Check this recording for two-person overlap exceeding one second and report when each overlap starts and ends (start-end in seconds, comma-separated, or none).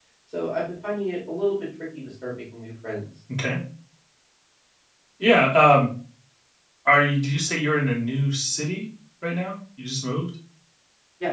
none